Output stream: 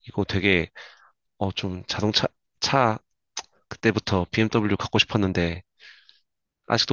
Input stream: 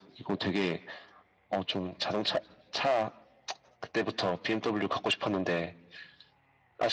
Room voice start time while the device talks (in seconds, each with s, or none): none